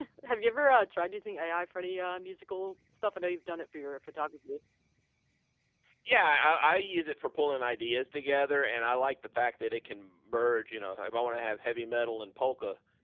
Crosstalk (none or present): none